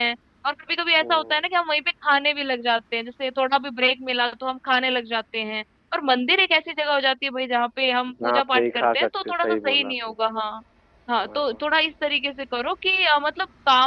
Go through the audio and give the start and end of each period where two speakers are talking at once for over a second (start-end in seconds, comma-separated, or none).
8.2-9.9